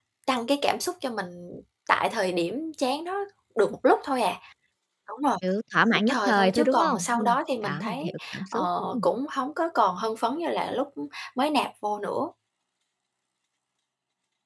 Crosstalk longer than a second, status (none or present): present